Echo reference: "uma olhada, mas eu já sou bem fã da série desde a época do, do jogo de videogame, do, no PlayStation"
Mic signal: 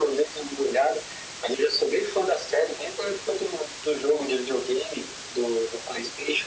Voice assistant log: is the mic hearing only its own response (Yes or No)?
Yes